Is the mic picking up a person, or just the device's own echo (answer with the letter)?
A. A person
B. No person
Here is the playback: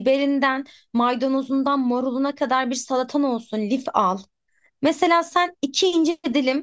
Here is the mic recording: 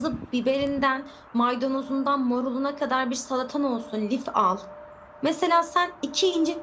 B